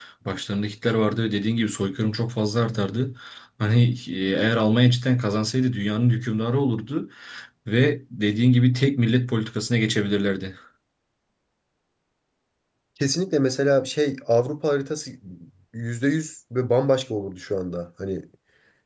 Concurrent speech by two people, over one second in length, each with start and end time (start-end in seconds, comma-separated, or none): none